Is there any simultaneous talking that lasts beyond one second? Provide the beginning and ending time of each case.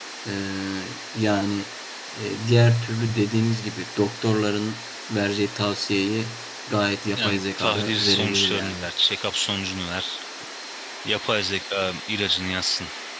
7.2-8.9

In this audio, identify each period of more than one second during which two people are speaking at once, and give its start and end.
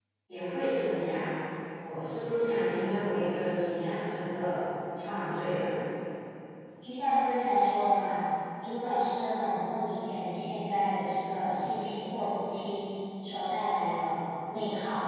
none

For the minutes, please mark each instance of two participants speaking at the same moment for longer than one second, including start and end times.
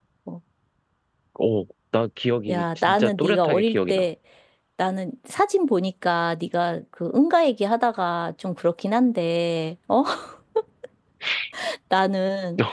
2.5-4.0

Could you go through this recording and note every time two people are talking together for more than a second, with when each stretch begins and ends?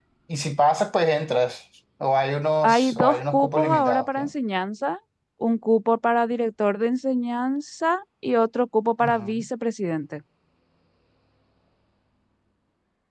2.6-4.3

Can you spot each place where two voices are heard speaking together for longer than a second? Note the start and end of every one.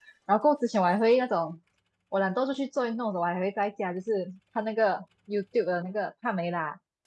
none

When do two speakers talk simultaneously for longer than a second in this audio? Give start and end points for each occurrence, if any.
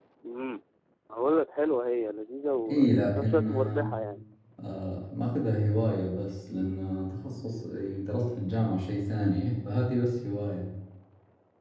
2.7-3.9

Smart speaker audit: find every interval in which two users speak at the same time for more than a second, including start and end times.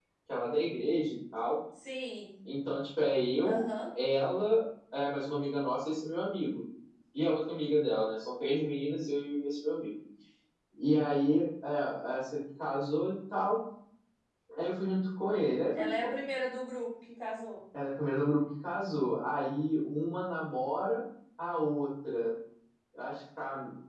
none

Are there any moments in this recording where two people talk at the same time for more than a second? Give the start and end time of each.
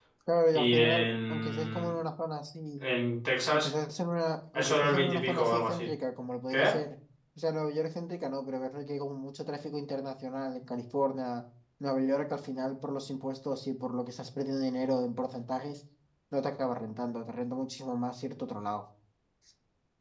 0.5-1.9, 4.5-5.9

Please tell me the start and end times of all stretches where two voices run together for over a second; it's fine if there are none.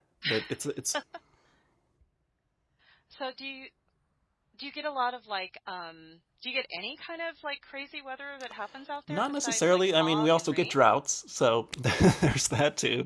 9.1-10.7

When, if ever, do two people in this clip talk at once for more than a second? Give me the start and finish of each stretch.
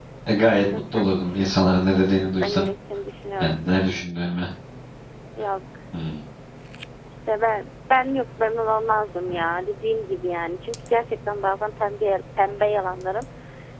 none

